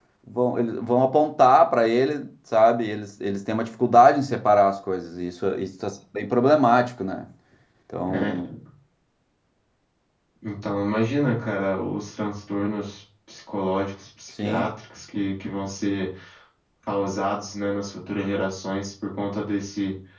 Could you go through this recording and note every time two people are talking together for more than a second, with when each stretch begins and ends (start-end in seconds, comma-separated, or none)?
none